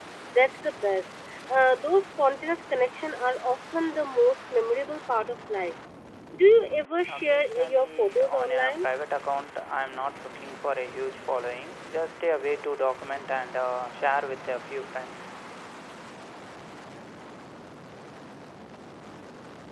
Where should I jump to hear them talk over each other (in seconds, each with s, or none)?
7.1 s